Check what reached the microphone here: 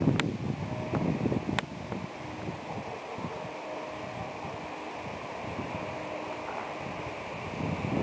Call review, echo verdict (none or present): none